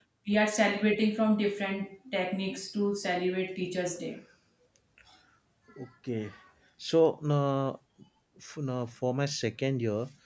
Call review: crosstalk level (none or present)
none